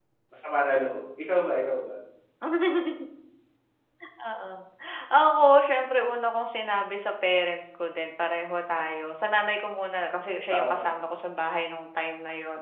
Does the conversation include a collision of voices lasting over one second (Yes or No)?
No